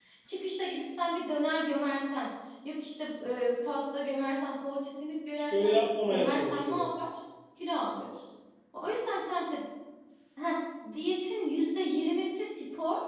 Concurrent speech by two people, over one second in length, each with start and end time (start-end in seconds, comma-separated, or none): 5.5-6.9